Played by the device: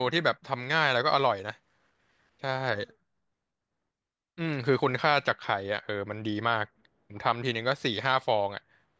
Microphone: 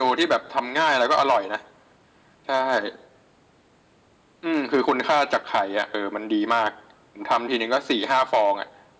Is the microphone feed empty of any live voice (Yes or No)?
Yes